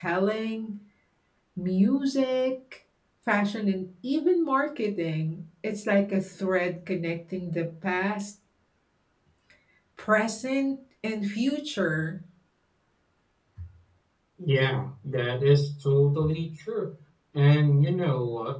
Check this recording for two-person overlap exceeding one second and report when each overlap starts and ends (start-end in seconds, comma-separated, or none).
none